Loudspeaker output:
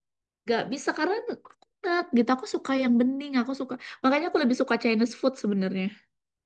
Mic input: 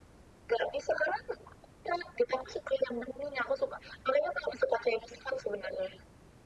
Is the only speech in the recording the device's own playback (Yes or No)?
Yes